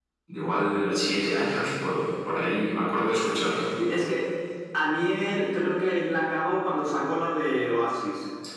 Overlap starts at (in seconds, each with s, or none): none